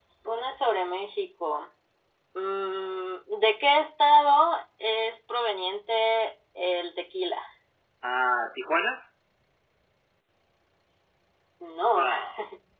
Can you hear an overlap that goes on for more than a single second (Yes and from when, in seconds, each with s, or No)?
No